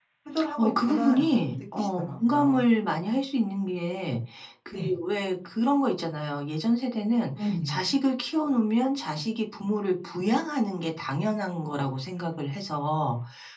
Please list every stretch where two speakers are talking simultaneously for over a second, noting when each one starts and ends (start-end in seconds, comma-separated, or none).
0.6-2.7